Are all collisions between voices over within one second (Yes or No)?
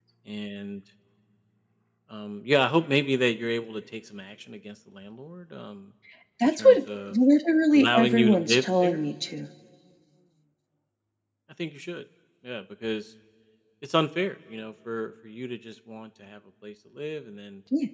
No